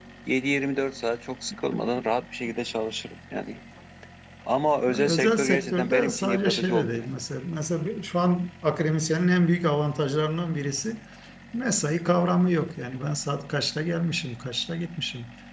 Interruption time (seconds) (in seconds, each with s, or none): 4.9 s